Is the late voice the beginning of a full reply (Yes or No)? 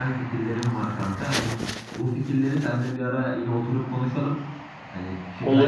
No